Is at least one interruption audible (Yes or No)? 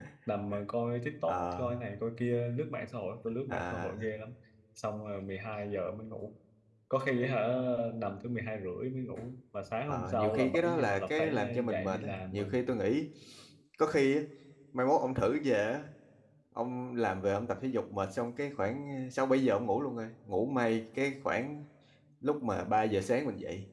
Yes